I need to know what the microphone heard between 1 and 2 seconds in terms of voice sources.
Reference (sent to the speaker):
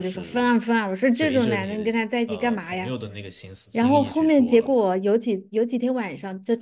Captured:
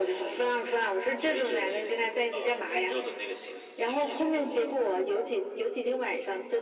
echo only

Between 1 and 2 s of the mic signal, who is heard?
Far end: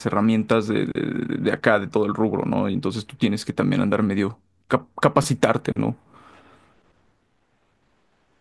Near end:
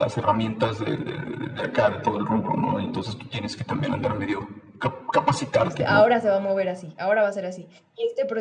echo only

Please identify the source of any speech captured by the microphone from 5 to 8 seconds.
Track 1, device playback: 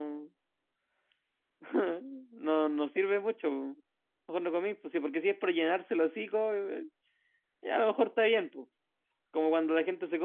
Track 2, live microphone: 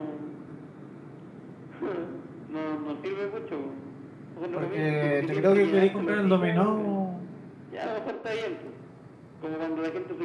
both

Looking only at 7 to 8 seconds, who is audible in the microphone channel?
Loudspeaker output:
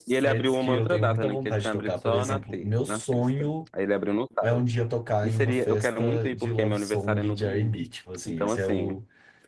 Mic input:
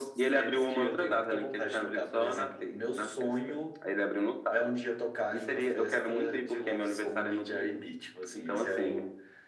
echo only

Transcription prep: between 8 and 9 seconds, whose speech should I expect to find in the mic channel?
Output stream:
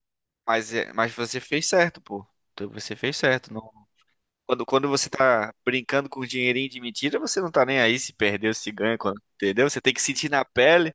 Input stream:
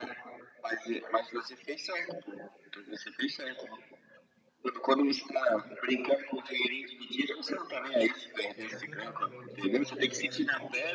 both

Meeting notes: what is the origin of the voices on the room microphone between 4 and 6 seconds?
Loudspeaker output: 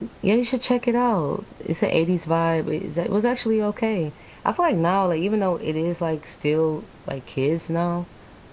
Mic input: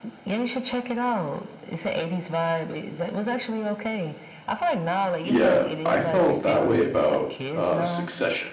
both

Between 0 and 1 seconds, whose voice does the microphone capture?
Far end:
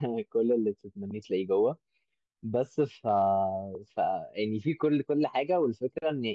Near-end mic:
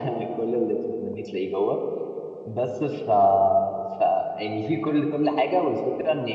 echo only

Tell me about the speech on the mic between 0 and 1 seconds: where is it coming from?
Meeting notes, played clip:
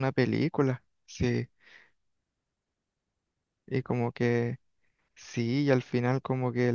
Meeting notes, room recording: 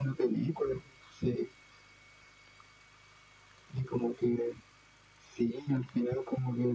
echo only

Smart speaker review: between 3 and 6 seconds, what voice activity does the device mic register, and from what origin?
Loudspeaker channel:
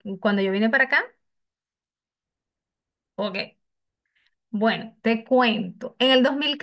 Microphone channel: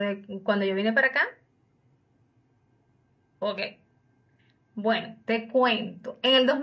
echo only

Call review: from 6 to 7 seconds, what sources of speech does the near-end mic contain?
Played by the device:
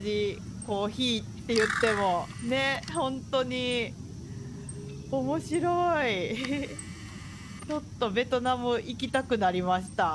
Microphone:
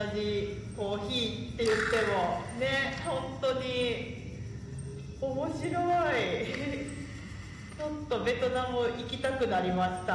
echo only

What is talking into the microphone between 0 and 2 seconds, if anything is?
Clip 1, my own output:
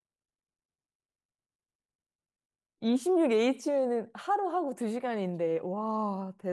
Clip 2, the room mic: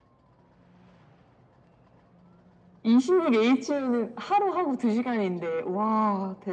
neither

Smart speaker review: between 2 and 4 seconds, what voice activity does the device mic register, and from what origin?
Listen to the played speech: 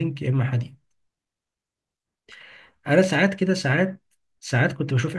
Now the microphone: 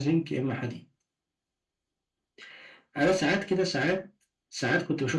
echo only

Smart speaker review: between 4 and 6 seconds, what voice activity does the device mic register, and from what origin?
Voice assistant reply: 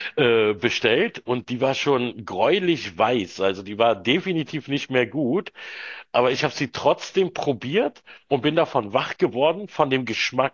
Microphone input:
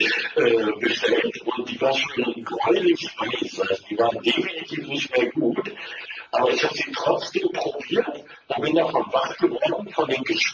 echo only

